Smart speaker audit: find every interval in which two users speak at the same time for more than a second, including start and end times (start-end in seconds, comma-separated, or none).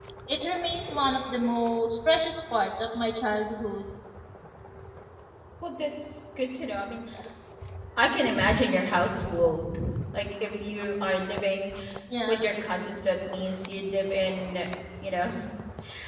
none